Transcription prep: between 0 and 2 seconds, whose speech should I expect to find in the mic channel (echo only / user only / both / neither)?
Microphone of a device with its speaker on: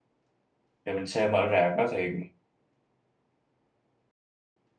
user only